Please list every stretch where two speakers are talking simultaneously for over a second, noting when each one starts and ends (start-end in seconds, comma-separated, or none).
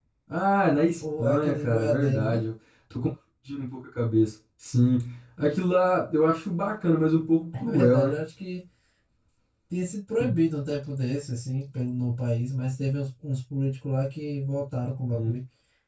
1.2-2.4